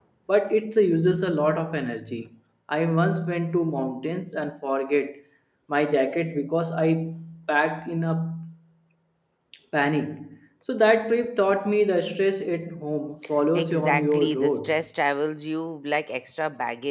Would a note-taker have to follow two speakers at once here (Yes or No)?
Yes